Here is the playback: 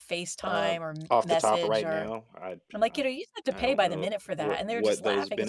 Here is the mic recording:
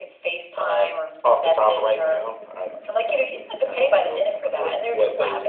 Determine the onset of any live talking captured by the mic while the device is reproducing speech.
none

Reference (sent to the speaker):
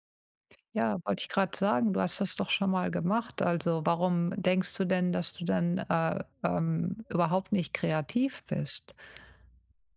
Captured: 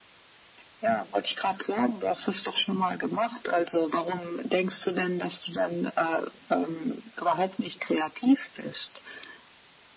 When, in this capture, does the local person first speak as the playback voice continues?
none

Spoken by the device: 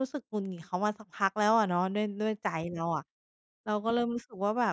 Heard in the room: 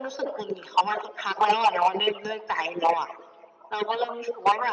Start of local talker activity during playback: none

